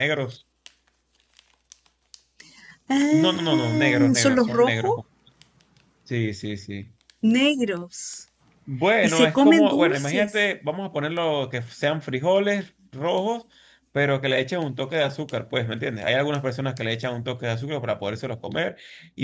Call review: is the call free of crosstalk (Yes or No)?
No